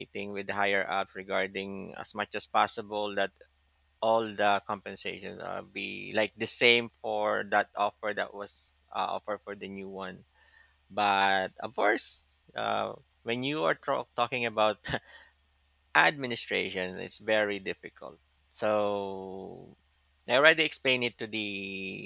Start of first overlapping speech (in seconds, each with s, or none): none